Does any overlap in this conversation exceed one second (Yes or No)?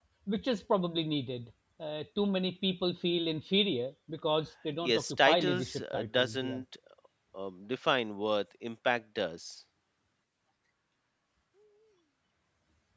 Yes